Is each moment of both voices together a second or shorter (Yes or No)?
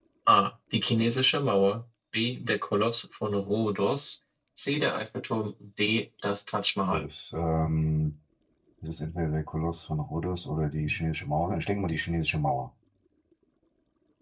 Yes